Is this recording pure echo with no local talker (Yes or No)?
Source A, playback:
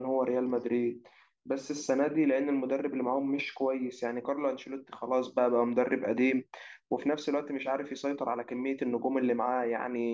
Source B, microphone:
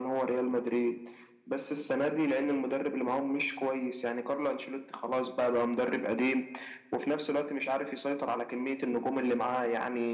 Yes